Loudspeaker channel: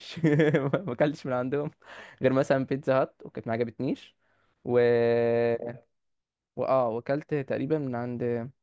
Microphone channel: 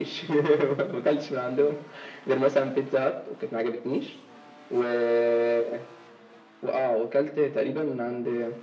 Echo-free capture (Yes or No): No